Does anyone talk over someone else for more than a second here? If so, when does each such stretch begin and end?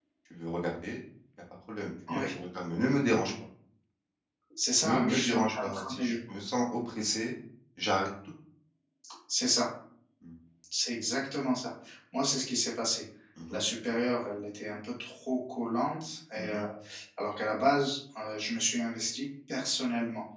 4.8-6.2

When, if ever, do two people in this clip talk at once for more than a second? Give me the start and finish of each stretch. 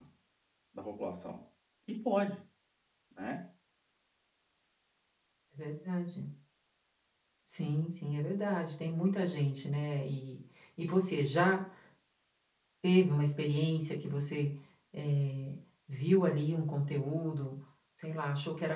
none

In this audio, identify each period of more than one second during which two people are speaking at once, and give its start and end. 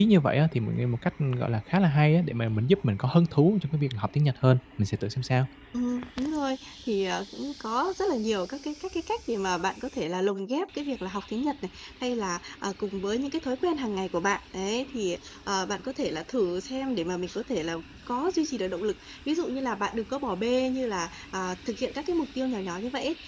none

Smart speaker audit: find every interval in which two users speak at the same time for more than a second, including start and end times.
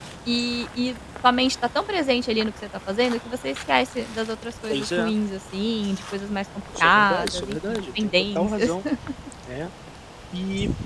6.8-8.7

